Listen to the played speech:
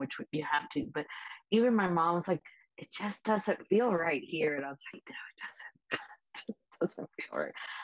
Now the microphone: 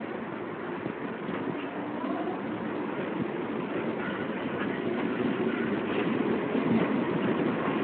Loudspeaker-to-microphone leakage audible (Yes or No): No